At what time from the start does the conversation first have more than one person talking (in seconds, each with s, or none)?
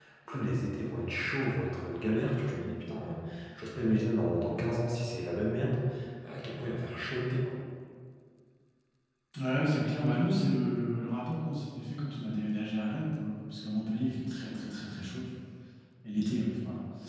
none